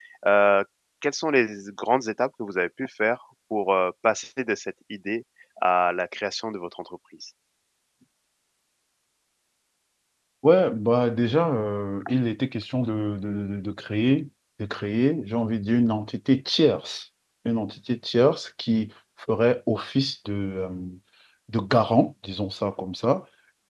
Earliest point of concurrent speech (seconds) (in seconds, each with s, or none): none